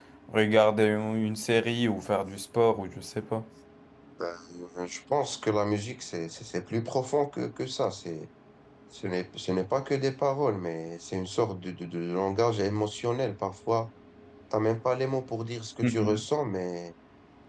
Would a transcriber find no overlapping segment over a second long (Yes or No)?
Yes